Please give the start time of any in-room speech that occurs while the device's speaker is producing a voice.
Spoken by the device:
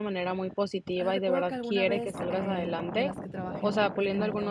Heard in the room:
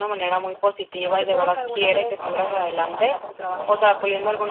none

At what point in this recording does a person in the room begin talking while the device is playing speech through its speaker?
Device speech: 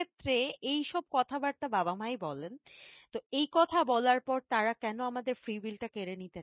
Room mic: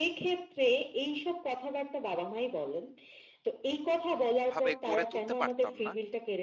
4.5 s

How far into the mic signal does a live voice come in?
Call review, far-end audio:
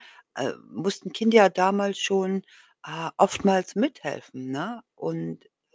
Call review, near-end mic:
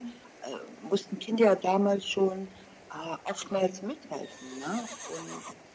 none

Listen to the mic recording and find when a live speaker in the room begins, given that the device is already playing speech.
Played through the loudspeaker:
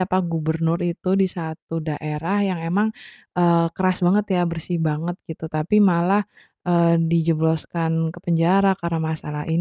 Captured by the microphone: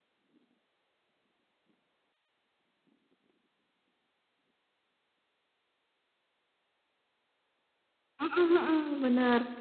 8.2 s

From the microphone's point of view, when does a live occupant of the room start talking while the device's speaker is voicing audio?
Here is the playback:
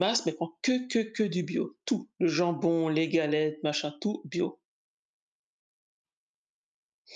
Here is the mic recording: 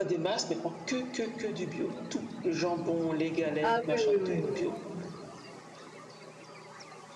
3.6 s

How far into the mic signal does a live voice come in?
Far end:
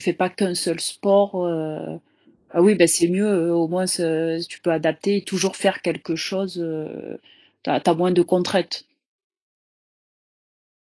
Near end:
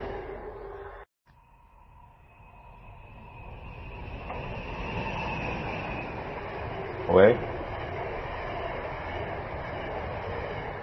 7.1 s

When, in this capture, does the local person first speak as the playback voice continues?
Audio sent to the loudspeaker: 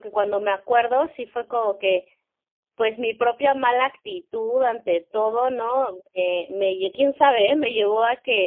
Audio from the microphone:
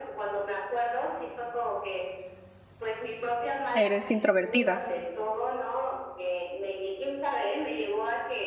3.7 s

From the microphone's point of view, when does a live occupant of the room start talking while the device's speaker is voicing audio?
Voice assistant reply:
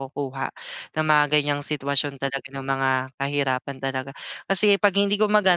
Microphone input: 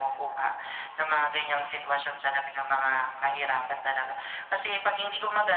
none

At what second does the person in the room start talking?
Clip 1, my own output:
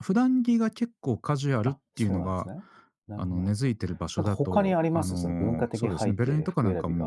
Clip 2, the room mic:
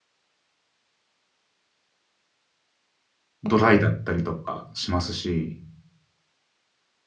3.4 s

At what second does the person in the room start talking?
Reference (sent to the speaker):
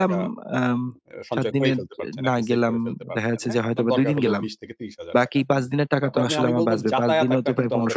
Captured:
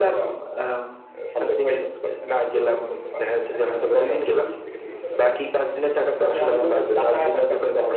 none

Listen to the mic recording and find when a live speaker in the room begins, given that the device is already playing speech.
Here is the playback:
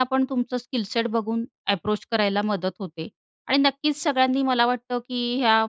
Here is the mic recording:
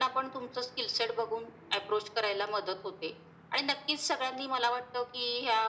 none

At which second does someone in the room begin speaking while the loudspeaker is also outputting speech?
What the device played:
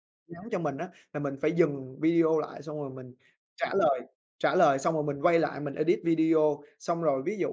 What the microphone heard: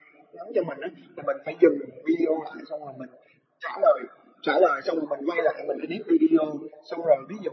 none

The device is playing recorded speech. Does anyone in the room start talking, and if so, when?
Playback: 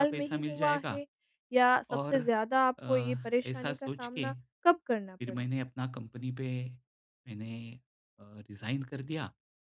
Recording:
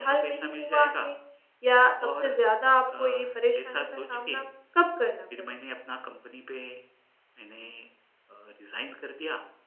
none

